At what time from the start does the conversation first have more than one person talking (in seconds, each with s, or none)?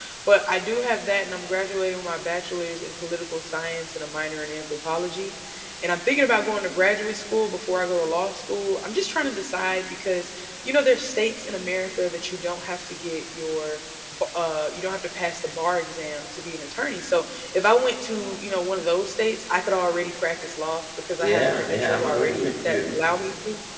21.2 s